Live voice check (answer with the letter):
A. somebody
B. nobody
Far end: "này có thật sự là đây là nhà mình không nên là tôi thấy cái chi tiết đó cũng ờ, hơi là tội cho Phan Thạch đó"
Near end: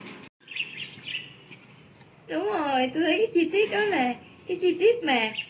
A